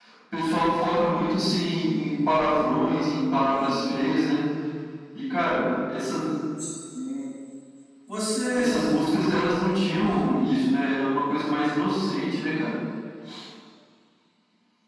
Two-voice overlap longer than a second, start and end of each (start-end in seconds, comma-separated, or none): none